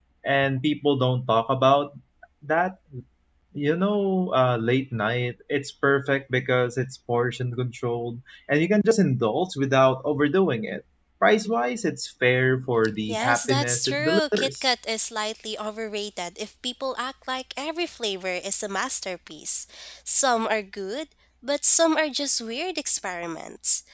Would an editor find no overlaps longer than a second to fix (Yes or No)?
No